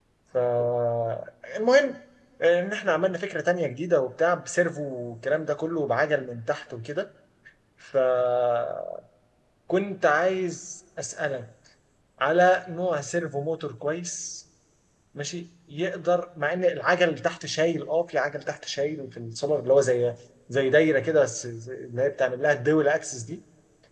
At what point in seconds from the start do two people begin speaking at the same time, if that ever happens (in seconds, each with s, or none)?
none